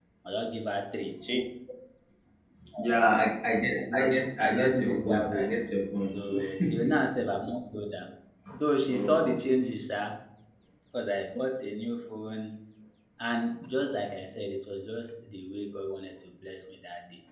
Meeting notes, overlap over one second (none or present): present